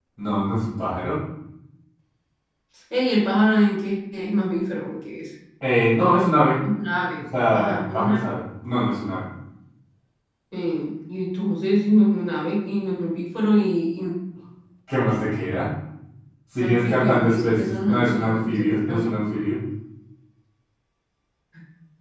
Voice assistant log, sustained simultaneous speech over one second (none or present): present